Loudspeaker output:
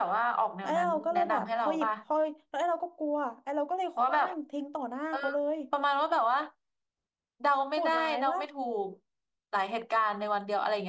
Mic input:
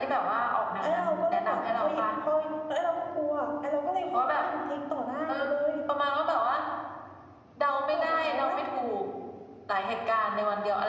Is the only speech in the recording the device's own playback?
Yes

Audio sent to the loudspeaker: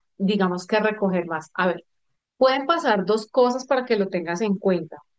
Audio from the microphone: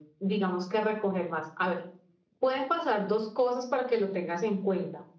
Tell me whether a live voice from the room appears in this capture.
No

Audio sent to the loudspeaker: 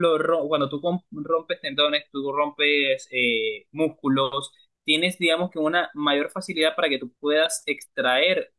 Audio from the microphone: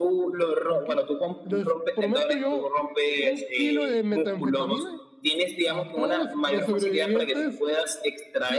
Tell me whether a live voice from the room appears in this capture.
Yes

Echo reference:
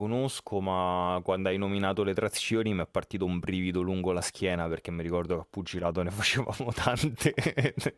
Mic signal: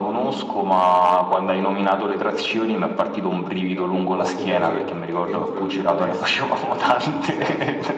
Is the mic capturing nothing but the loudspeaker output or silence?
No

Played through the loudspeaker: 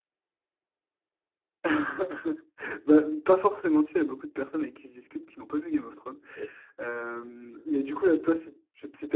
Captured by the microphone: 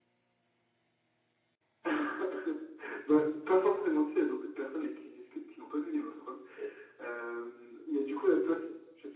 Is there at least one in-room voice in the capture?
No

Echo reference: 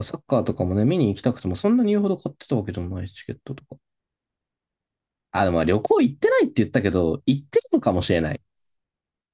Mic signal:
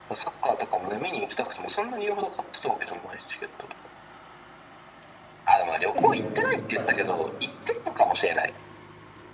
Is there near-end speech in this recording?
Yes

